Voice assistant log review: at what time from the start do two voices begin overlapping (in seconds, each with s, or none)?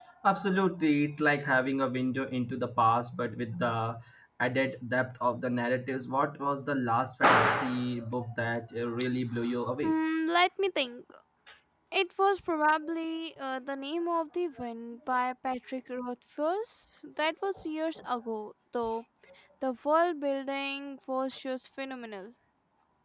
none